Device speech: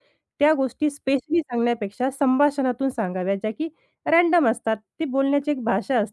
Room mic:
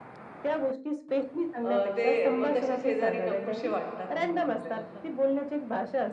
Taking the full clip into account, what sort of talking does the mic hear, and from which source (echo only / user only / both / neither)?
both